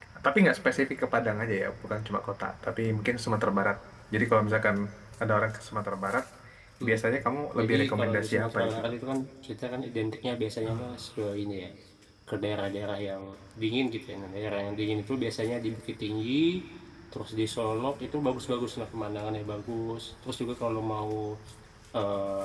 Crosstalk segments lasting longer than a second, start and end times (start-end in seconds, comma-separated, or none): 7.6-8.9